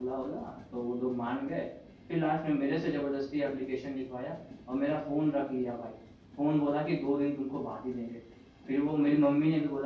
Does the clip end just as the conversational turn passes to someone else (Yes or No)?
No